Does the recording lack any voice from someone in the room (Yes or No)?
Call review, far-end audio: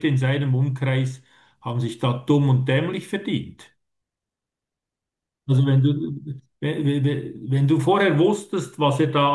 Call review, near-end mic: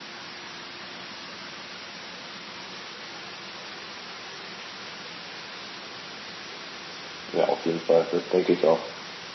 No